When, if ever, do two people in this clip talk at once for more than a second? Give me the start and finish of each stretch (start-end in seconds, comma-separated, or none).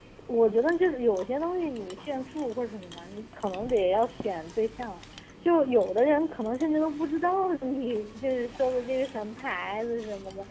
none